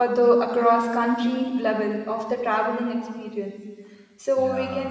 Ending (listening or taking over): listening